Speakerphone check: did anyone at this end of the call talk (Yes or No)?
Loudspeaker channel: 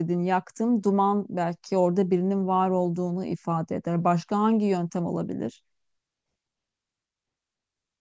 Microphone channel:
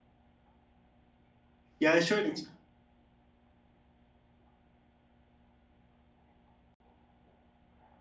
Yes